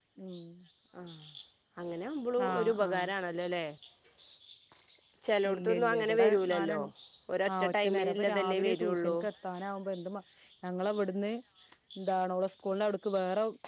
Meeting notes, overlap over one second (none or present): present